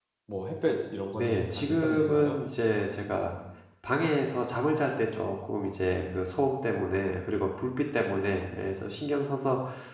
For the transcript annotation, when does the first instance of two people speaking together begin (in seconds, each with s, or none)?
1.1 s